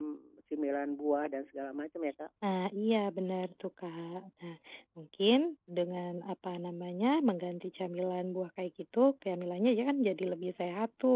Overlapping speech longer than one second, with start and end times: none

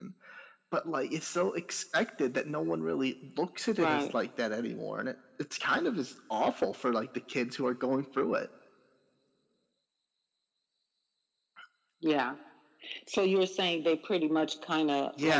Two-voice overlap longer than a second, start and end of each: none

